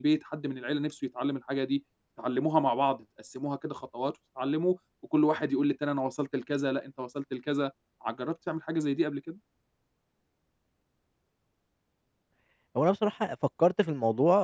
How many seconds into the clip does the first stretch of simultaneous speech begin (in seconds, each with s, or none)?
none